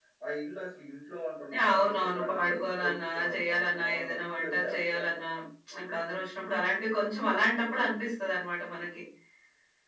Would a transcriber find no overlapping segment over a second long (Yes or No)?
No